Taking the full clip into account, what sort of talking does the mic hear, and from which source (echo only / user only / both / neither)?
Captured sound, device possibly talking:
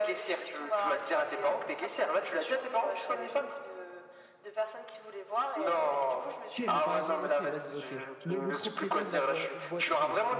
both